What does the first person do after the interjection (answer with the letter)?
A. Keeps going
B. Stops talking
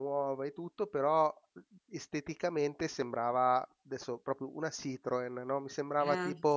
A